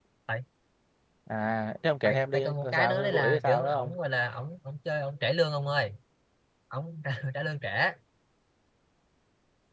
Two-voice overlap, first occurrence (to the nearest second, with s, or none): 2 s